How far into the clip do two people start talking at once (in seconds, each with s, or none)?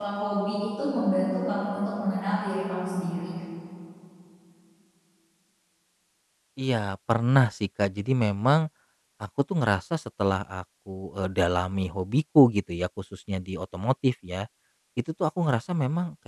none